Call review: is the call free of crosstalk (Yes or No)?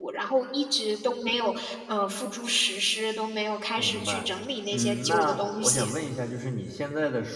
No